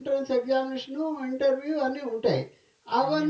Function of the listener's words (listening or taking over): listening